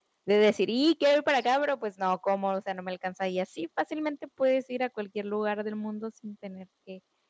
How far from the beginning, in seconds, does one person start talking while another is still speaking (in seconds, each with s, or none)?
none